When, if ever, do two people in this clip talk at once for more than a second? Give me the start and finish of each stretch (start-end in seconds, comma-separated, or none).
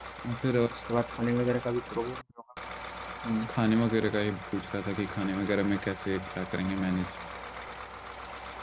none